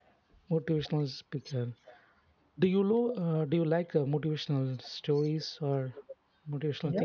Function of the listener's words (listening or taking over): taking over